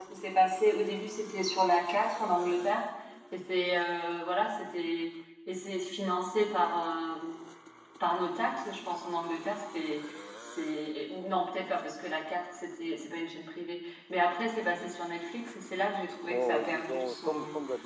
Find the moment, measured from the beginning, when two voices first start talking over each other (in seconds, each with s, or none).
16.2 s